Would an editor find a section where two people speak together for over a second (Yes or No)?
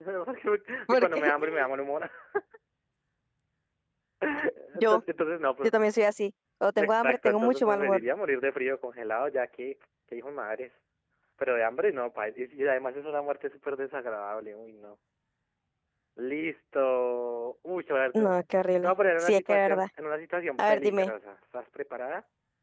Yes